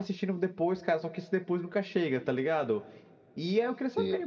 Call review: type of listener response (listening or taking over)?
listening